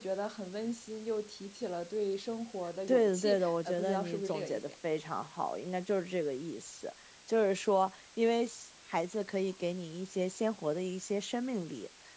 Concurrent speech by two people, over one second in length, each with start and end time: 2.9-4.6

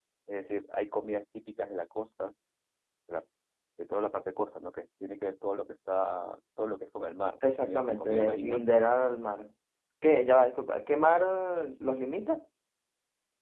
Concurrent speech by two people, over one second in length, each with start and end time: 7.4-8.6

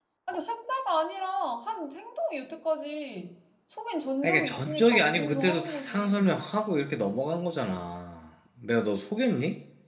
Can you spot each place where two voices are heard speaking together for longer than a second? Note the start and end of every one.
4.2-6.4

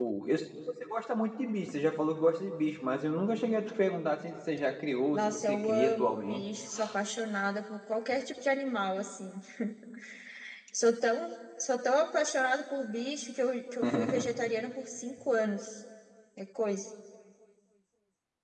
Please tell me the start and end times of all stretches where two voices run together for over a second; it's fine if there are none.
5.1-6.4

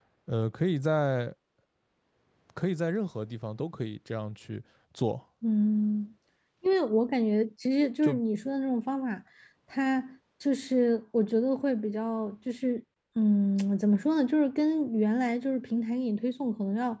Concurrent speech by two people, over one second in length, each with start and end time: none

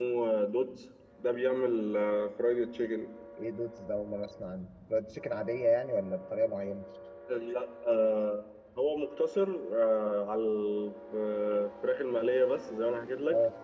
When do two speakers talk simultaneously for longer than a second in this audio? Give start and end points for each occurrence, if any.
none

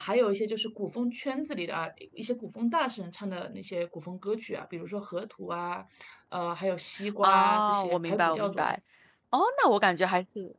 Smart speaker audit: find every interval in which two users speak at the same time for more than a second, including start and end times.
7.2-8.7

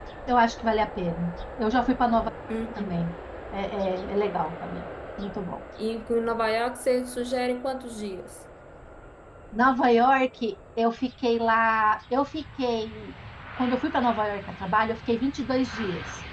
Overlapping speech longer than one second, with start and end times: none

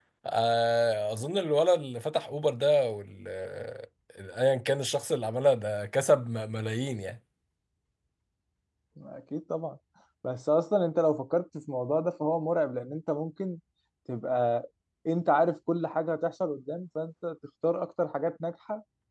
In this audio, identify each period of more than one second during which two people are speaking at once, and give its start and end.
none

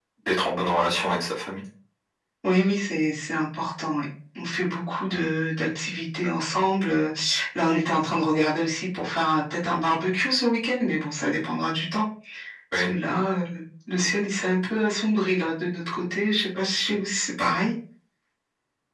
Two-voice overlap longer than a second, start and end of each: none

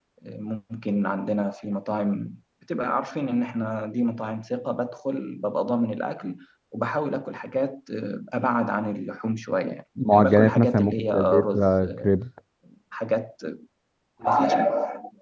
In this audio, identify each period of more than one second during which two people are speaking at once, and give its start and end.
10.1-12.1

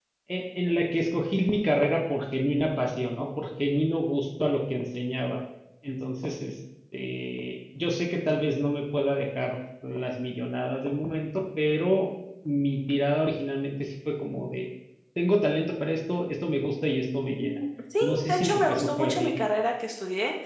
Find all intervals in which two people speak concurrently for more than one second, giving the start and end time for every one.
18.0-19.3

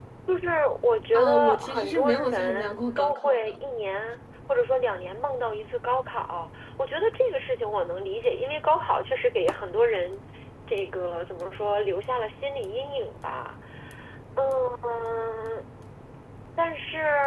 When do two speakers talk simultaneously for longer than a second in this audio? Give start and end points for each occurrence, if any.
1.1-3.5

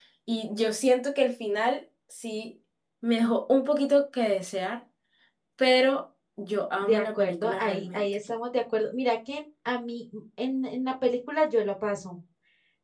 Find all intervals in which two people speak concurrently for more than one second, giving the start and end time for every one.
6.8-8.0

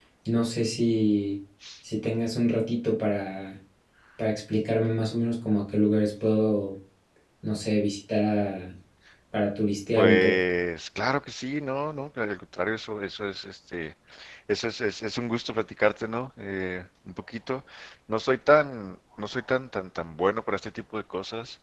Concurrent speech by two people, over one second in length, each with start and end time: none

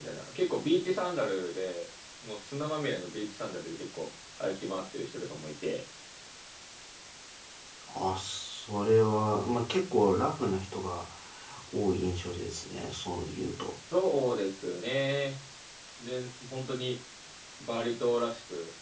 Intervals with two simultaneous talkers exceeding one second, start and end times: none

